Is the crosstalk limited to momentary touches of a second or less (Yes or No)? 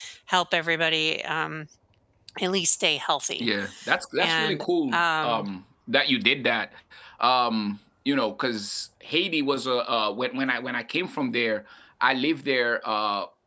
No